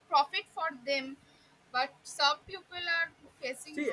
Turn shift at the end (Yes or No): Yes